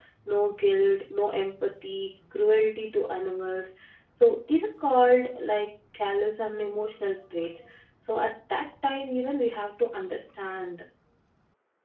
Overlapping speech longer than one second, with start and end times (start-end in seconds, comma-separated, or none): none